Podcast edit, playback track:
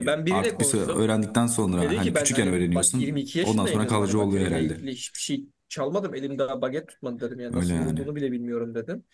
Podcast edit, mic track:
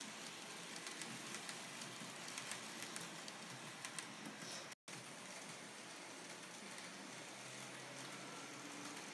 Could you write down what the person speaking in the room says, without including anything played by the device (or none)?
none